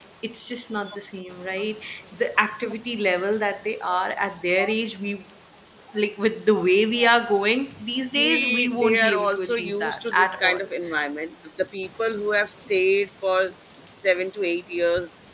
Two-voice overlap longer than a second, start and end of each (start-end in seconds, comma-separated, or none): 8.2-10.6